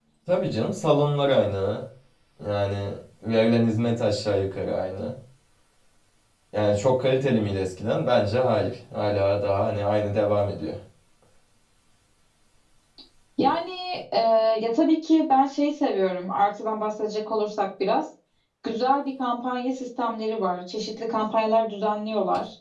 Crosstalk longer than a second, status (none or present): none